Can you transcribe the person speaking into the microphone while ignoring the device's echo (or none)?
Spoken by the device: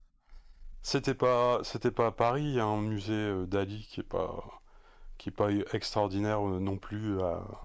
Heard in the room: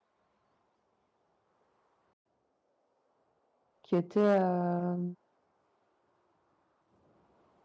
qui était euh,